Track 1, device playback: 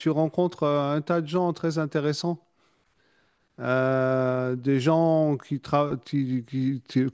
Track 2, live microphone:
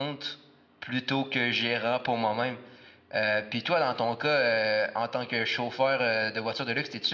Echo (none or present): none